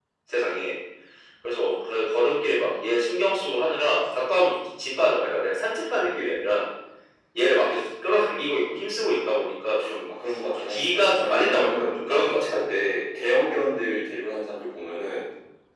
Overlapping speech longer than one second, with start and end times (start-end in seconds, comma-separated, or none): 10.7-12.4